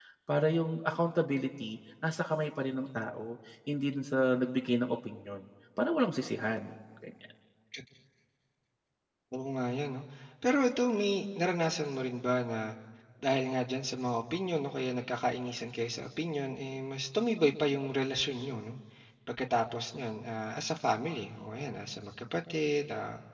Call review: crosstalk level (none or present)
none